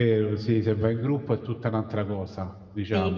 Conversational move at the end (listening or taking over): taking over